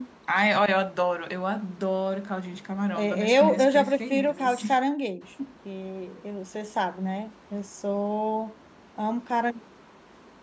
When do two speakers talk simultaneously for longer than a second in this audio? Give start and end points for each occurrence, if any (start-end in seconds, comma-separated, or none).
3.0-4.8